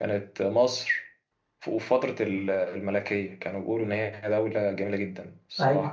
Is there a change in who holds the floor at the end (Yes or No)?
Yes